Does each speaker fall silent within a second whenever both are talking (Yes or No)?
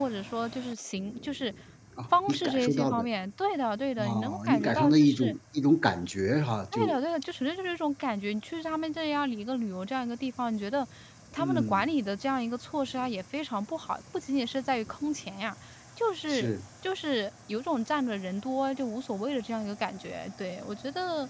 No